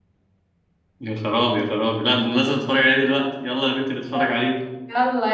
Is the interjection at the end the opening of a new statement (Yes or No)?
Yes